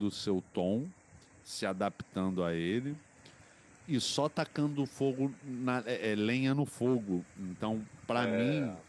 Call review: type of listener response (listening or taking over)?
listening